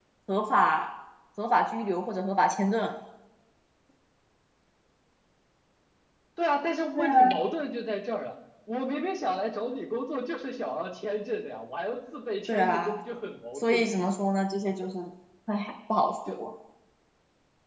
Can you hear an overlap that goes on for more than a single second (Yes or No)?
No